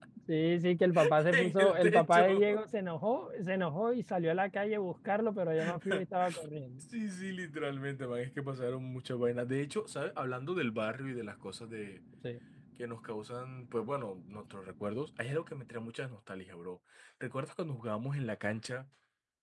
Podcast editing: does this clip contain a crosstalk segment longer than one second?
Yes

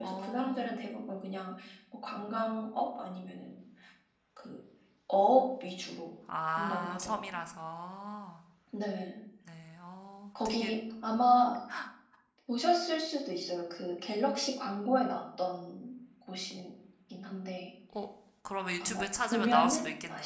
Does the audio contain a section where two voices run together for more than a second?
Yes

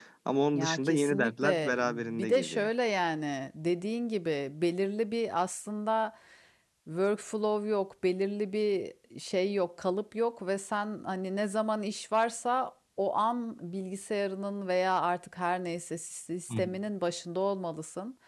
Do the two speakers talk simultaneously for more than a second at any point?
Yes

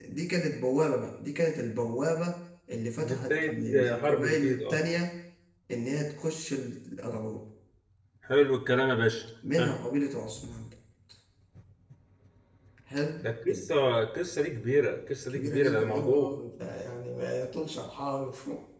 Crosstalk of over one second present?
Yes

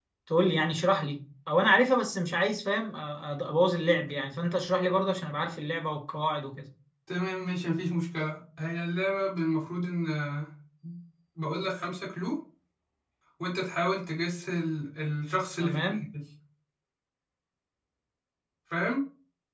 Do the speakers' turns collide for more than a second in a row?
No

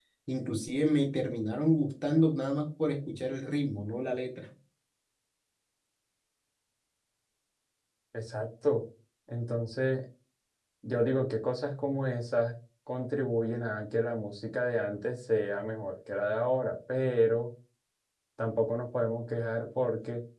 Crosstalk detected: No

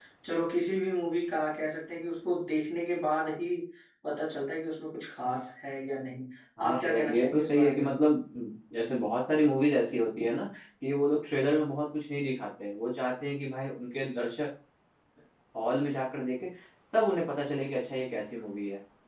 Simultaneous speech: Yes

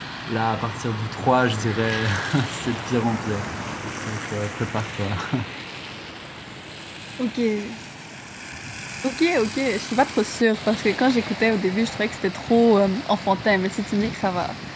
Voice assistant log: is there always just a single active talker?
Yes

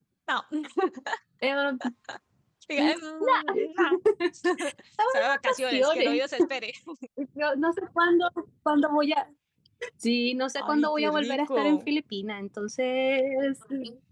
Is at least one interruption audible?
Yes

